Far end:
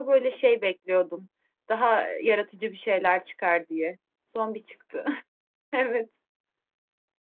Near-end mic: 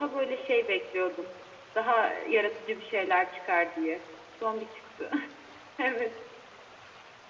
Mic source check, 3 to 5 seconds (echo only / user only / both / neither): echo only